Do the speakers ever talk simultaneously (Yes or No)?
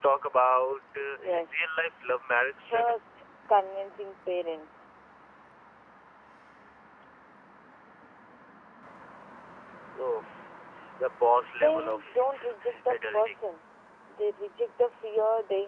Yes